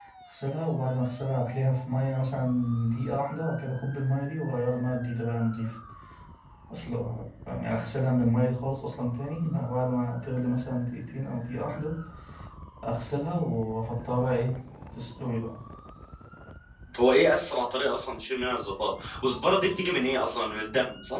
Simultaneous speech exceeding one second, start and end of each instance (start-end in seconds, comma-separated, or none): none